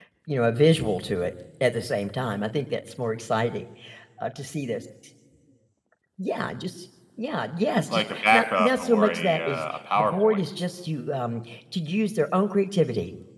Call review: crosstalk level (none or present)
present